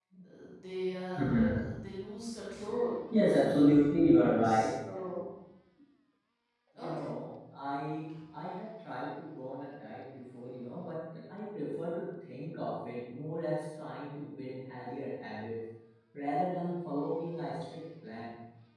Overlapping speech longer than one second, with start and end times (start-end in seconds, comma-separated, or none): none